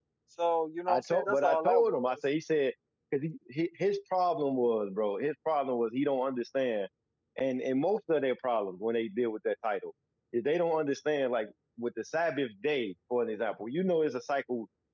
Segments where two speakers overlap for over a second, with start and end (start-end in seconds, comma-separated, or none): 0.9-2.2